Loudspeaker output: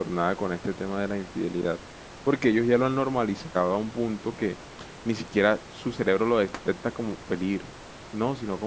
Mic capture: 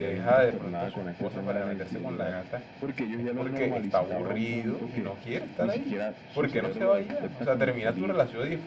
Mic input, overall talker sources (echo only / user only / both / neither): both